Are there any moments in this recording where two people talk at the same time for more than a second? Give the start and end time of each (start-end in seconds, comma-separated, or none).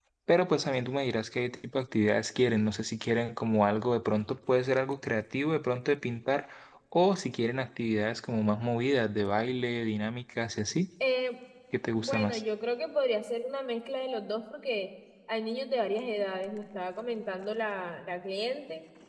none